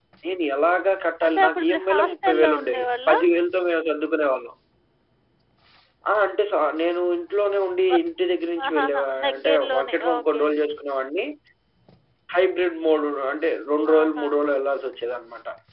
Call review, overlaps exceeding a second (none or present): present